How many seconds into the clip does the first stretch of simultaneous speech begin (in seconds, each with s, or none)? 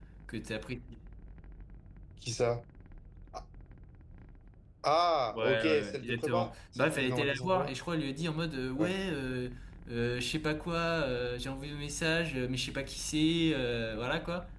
5.3 s